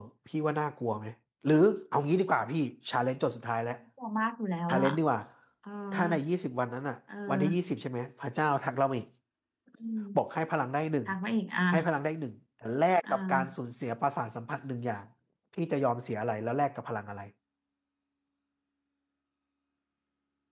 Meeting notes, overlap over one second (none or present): none